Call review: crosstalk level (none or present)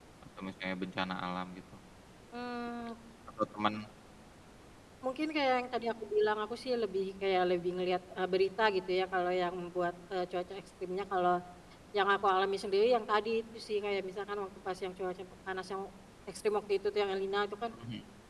none